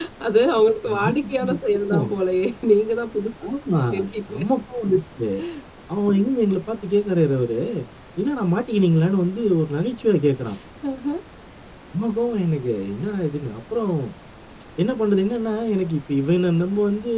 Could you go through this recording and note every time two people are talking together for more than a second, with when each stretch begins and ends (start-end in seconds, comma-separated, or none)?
0.9-2.1